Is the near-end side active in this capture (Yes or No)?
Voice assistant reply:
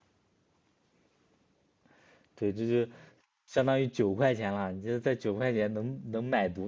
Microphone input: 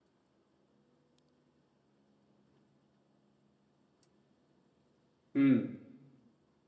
Yes